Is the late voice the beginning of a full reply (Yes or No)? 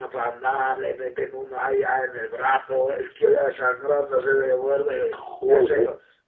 No